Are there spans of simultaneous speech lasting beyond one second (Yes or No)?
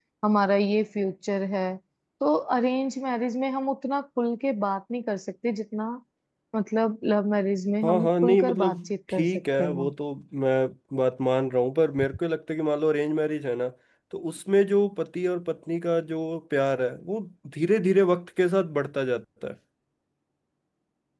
Yes